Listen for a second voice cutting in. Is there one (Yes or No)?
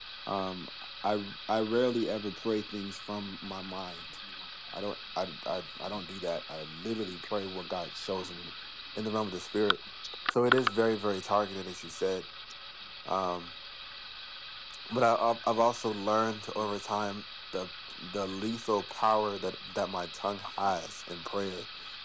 No